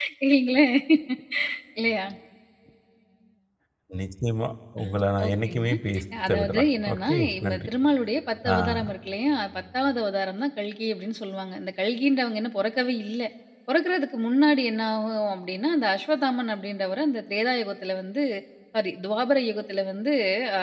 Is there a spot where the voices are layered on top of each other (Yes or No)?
Yes